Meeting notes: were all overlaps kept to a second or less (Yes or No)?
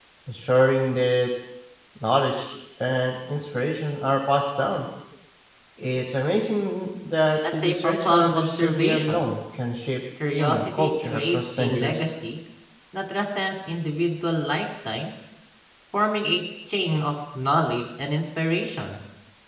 No